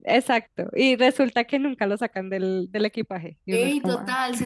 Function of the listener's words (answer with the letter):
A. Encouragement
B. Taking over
B